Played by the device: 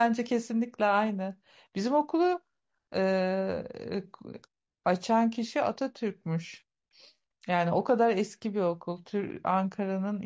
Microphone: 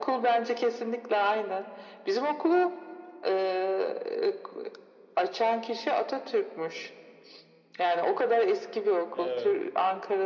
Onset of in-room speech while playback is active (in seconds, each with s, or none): 9.1 s